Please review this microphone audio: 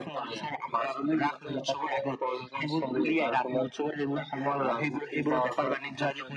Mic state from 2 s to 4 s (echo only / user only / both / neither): echo only